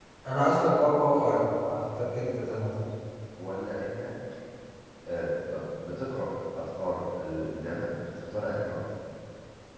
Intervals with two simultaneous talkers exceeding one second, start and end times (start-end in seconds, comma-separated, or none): none